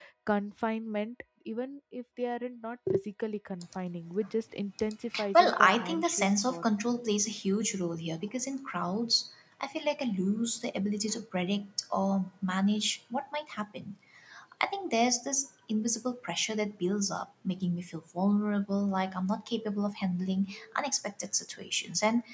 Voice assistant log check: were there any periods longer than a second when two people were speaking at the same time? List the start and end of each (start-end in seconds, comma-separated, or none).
5.3-6.6